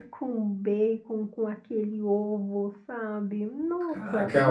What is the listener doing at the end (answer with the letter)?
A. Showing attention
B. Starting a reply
B